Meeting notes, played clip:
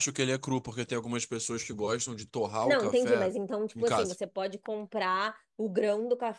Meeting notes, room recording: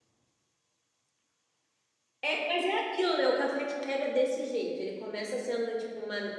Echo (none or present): none